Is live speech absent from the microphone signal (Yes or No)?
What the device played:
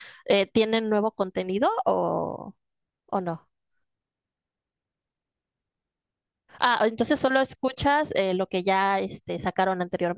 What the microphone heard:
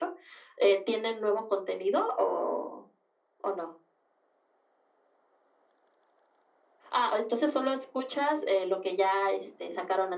Yes